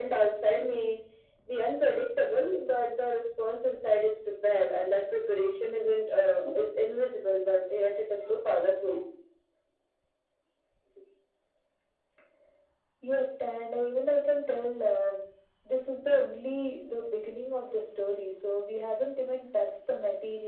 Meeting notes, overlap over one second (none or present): none